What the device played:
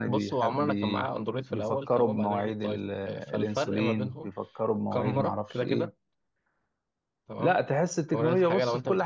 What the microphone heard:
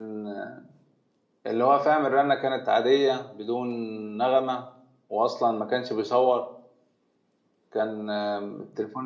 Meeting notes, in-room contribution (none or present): present